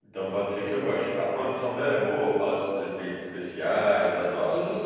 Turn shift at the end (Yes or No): Yes